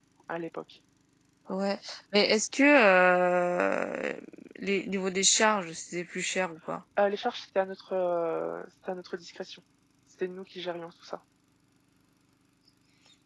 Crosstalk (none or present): none